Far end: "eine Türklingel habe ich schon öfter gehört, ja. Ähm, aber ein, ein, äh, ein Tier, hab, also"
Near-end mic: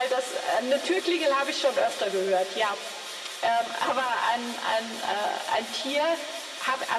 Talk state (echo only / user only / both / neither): echo only